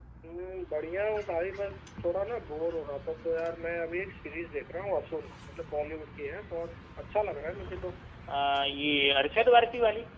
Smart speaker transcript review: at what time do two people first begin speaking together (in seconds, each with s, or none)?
none